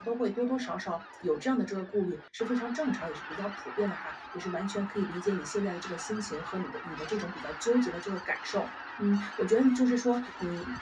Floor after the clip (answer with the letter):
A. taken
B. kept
B